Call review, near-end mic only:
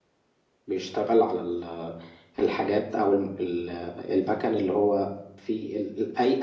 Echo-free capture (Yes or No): Yes